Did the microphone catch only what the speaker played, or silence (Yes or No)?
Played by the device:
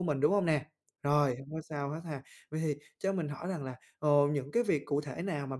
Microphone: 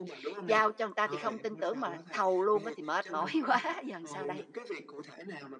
No